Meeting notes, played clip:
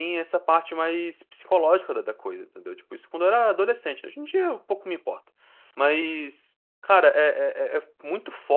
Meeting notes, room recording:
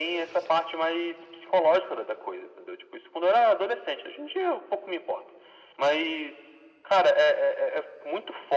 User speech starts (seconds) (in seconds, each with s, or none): none